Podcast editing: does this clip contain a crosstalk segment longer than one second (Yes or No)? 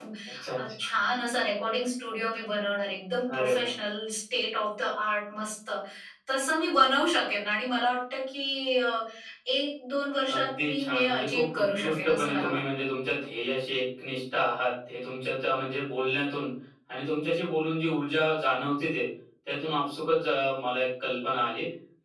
Yes